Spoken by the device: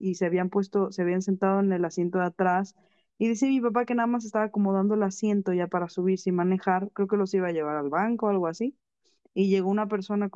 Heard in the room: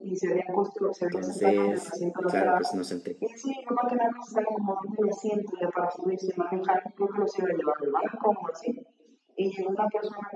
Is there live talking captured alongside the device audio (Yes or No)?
Yes